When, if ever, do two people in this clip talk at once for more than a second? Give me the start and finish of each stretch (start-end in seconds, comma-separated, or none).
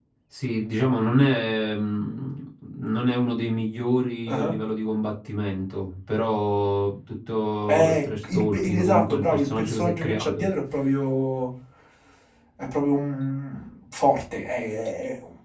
7.7-10.5